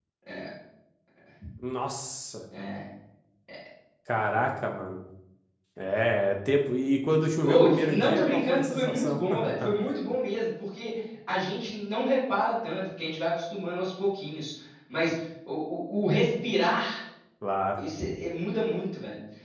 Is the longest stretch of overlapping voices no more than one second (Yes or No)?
No